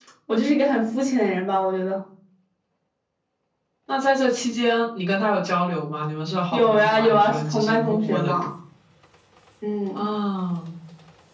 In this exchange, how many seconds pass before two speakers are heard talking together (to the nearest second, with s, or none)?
7 s